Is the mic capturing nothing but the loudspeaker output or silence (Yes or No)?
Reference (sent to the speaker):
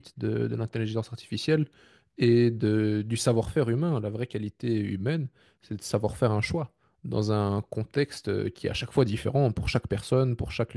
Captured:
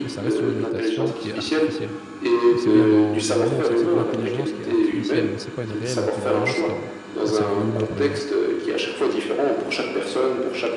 No